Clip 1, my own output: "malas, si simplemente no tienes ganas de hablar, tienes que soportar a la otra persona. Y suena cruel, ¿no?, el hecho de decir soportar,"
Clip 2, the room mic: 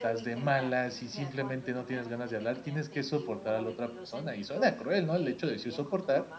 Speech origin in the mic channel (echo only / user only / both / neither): both